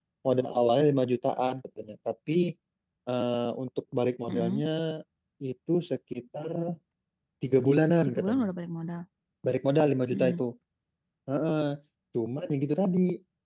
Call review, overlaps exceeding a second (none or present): none